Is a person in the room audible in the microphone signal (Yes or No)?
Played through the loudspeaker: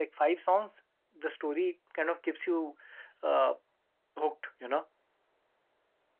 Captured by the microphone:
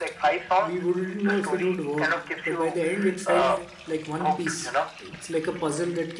Yes